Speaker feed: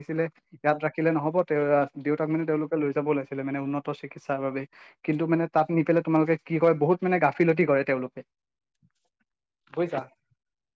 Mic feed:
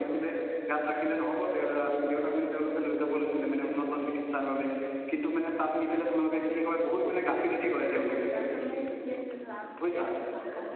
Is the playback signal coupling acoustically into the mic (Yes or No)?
Yes